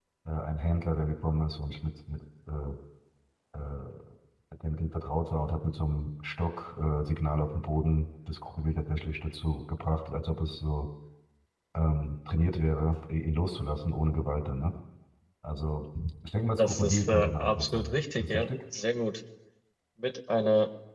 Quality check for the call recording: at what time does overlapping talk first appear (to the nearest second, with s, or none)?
17 s